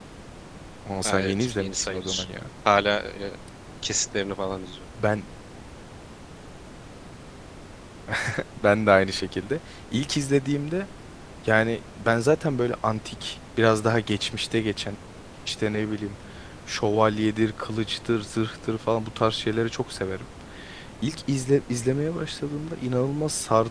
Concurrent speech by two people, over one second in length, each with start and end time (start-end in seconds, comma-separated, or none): 1.0-2.2